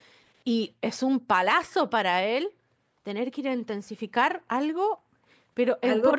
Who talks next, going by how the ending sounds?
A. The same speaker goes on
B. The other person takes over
B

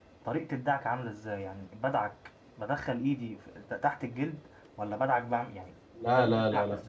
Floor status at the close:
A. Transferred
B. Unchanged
A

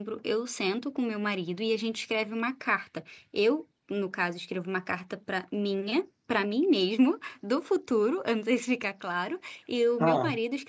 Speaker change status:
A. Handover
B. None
B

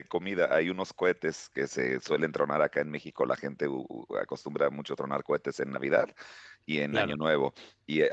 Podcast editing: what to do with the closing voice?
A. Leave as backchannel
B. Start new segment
A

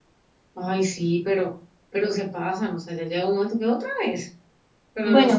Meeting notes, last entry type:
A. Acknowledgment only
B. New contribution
B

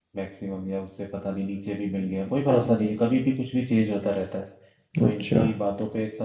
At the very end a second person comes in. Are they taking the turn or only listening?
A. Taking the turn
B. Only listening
B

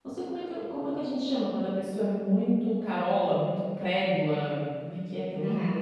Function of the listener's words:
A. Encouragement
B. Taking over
B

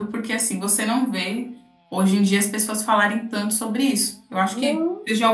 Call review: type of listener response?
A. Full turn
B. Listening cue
B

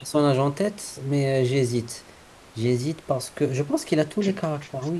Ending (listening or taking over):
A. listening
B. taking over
B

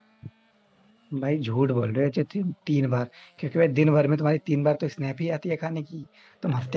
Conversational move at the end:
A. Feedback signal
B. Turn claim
A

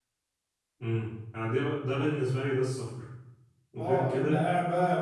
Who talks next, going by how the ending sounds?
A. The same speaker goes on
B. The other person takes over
B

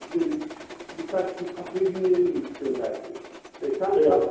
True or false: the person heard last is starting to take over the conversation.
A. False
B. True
A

